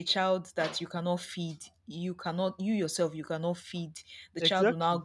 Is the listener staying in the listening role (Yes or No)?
Yes